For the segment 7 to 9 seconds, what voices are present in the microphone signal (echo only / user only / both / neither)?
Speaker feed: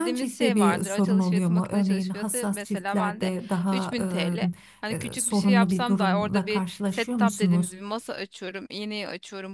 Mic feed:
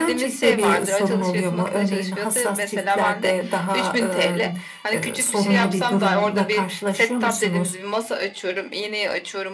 echo only